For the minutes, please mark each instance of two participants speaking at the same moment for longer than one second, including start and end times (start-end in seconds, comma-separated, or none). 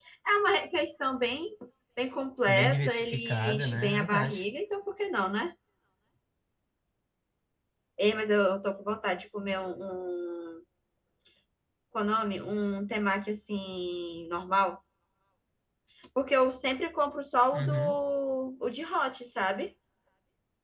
2.5-4.4